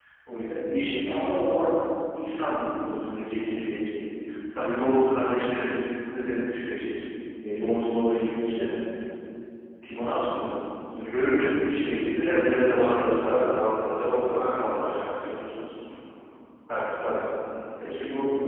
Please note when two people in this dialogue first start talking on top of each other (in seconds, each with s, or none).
12.0 s